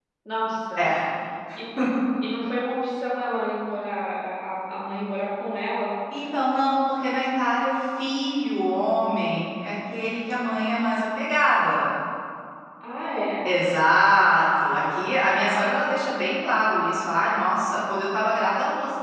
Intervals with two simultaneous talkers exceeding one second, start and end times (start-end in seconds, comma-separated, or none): none